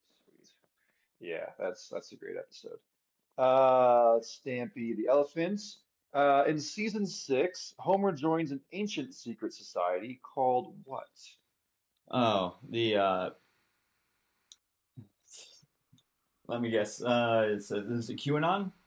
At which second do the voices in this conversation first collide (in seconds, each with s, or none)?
none